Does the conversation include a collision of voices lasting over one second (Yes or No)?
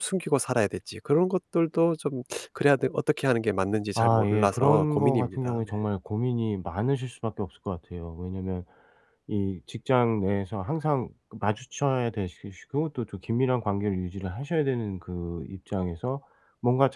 Yes